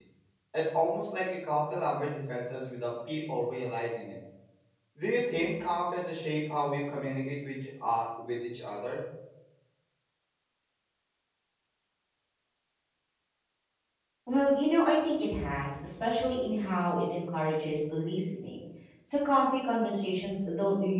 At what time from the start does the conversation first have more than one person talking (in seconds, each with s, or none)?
none